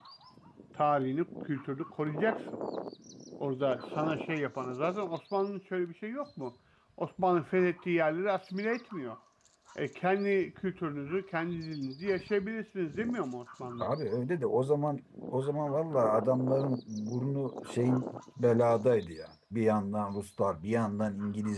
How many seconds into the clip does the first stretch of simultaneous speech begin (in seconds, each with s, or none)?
none